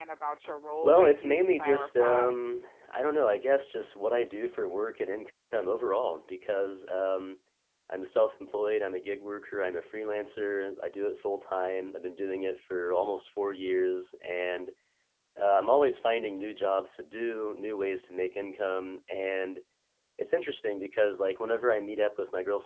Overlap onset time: 0.8 s

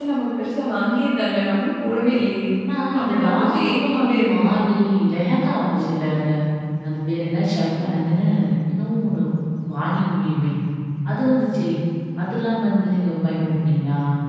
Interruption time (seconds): 3.0 s

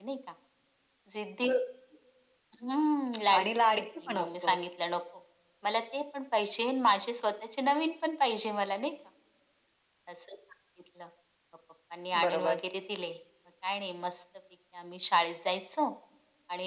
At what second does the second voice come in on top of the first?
3.4 s

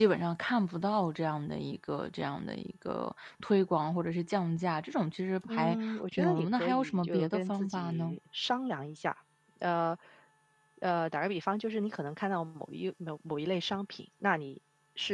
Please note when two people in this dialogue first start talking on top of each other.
5.5 s

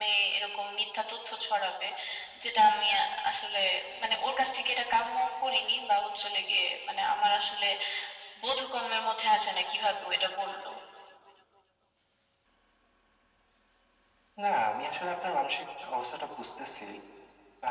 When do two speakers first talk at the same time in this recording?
none

